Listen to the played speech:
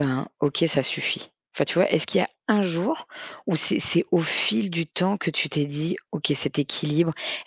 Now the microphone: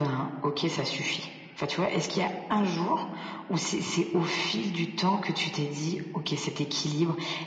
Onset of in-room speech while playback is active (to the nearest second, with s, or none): none